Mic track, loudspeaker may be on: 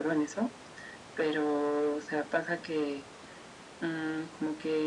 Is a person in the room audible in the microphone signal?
No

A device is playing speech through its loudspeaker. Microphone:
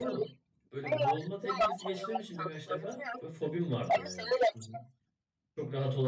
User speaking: Yes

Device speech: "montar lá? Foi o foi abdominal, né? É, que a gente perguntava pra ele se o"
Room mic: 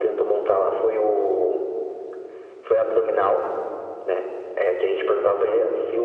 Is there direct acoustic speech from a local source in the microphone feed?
No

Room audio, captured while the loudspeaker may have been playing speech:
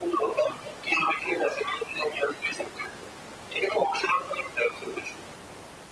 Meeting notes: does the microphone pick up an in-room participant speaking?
No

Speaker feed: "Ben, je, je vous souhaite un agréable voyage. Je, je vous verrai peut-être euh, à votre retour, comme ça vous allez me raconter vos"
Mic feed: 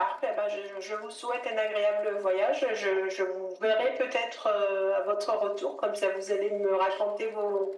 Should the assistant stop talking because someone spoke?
No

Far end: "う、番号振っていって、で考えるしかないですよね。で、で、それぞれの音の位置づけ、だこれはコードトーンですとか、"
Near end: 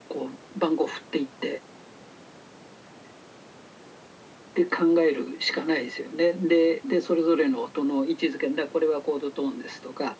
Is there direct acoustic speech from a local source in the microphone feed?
No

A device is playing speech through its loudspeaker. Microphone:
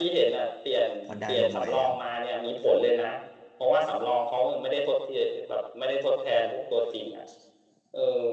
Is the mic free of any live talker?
No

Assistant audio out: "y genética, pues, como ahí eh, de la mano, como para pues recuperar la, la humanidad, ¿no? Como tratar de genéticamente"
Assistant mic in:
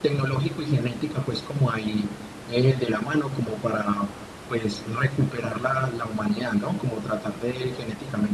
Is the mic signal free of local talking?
Yes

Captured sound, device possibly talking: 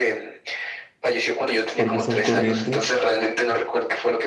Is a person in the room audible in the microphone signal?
Yes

